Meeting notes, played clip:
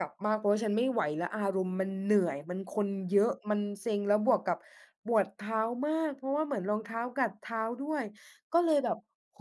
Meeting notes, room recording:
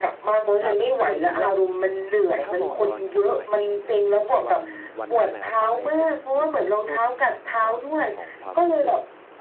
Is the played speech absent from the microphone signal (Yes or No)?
No